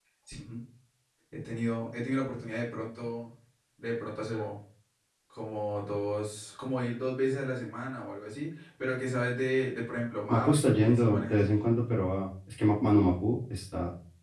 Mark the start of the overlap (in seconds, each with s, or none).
10.3 s